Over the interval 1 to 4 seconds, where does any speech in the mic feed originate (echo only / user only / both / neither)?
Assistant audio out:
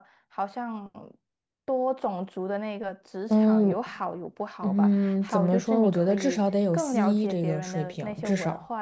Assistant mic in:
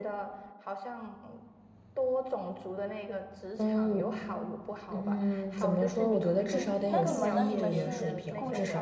echo only